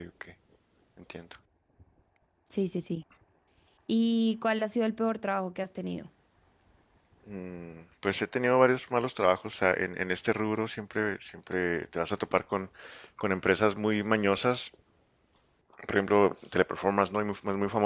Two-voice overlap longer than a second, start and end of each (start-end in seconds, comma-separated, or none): none